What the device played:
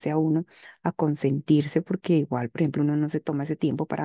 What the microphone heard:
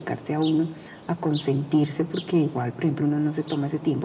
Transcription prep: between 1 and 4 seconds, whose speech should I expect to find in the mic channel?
echo only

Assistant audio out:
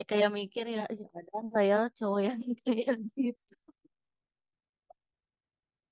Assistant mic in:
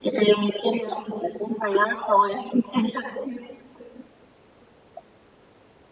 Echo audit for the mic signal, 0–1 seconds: echo only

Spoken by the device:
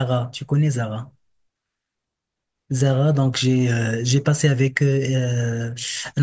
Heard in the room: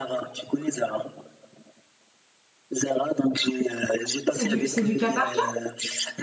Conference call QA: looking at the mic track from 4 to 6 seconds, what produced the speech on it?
both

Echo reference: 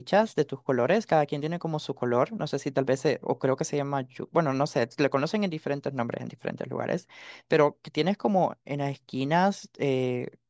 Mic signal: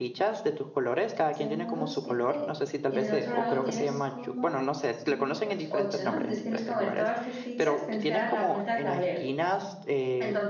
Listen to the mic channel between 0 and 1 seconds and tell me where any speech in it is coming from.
echo only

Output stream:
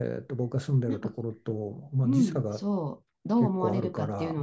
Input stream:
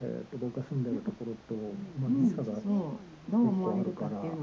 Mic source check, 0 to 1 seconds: echo only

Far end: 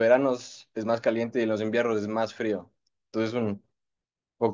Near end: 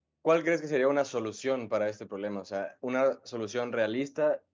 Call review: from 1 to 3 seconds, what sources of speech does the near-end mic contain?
user only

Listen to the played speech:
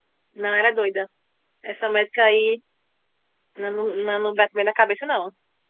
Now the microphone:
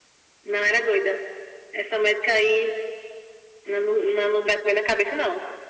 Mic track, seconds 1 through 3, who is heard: echo only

